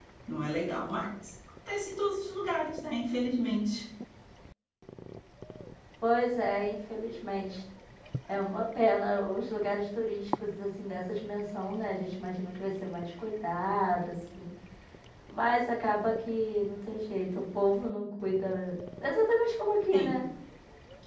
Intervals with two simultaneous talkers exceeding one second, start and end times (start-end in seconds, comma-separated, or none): none